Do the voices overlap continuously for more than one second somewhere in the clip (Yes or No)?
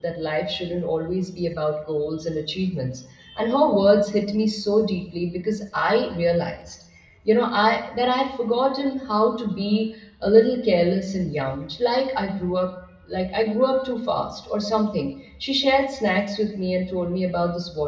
No